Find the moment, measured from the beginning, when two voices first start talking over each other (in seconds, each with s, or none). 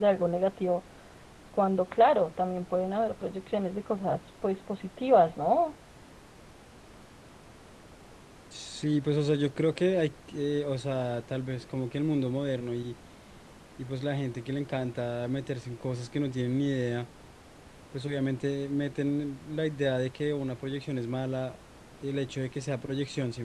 none